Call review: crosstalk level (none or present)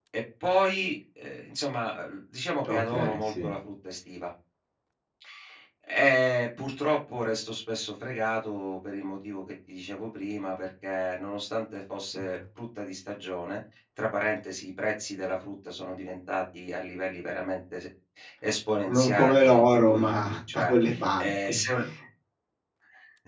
present